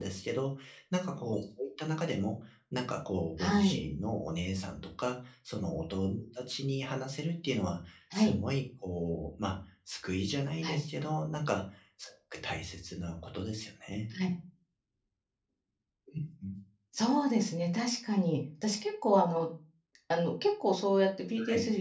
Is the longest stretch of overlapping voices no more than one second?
Yes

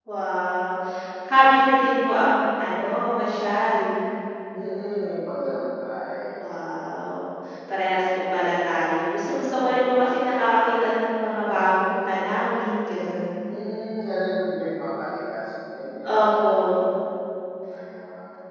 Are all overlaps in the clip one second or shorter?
Yes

